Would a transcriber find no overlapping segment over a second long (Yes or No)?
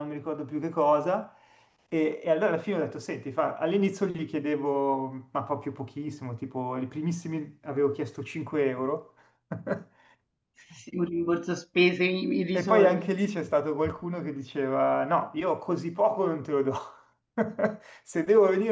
Yes